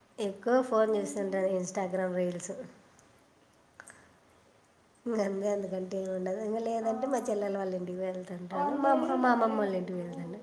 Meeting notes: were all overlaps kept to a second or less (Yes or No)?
No